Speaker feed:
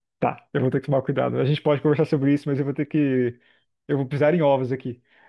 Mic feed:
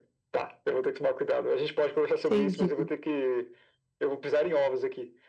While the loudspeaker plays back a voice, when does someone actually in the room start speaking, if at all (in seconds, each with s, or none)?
2.2 s